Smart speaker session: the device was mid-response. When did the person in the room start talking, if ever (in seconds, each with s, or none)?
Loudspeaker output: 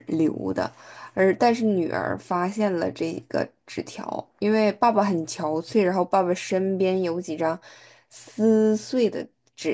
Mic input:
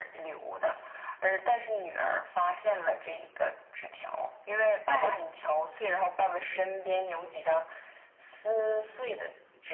4.8 s